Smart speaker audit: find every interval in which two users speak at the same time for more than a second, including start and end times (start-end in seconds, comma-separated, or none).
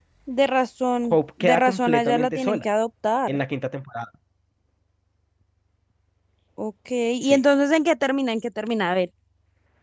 1.0-2.6